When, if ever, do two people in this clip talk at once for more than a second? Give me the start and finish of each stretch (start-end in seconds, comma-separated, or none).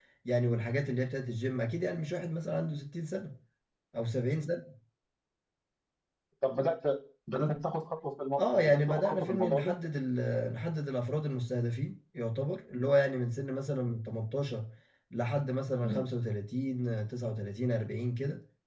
8.4-9.7